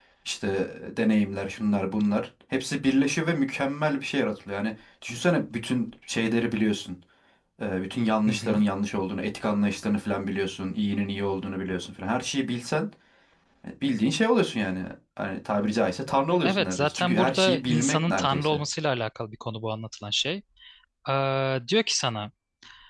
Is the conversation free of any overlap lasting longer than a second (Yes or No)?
No